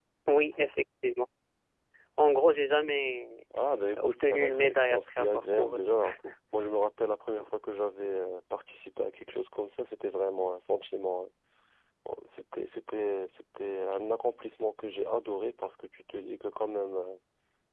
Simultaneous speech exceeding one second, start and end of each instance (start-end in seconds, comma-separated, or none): 4.0-5.8